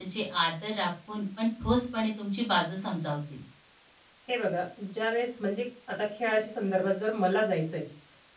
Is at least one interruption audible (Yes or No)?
No